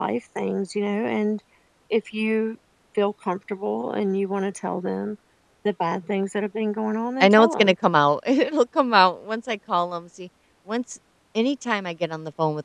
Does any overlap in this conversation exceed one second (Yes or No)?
No